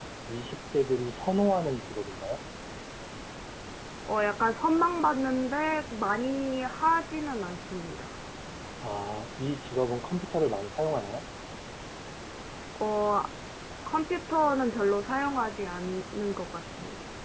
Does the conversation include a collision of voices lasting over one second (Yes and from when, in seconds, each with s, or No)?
No